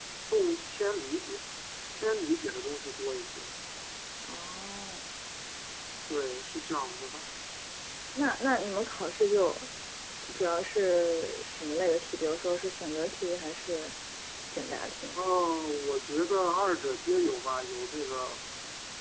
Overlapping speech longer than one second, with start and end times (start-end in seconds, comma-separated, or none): none